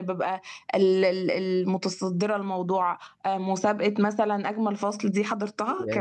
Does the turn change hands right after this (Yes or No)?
Yes